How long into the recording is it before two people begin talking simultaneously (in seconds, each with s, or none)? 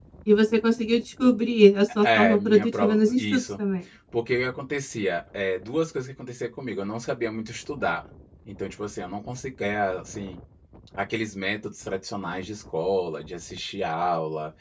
2.0 s